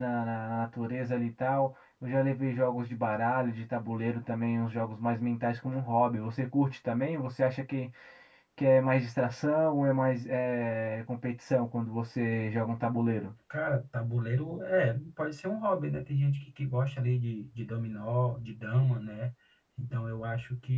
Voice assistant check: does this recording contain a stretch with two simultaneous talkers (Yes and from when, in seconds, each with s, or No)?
No